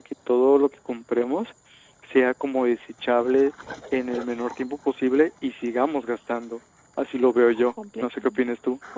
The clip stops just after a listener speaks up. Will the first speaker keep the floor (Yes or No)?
No